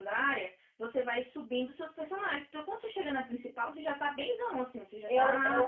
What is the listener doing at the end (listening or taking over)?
taking over